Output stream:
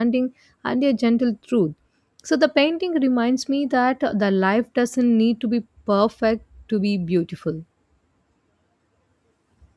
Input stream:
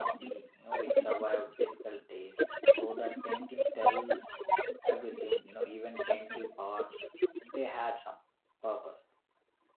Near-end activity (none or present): present